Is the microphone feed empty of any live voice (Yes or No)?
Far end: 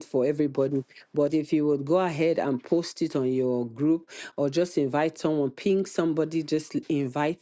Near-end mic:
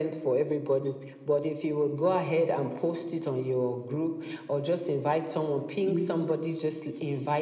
No